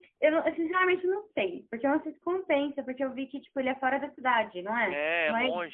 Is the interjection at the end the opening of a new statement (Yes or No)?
Yes